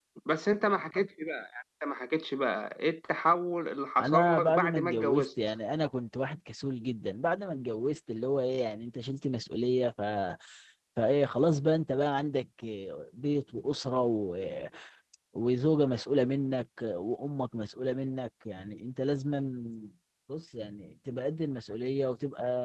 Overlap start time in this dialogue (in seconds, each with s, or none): 4.0 s